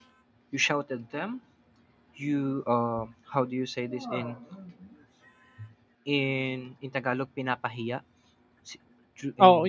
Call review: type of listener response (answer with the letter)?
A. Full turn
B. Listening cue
A